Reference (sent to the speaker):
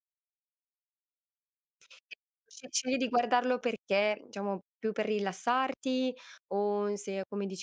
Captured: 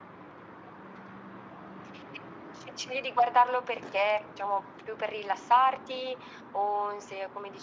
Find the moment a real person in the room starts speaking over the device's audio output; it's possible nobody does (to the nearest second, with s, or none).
none